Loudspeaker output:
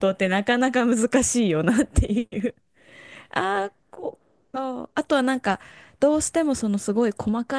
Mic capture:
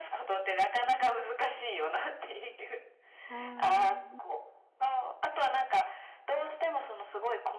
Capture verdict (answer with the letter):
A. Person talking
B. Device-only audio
A